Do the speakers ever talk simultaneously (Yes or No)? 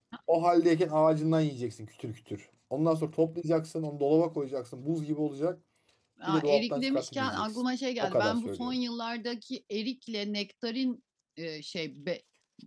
Yes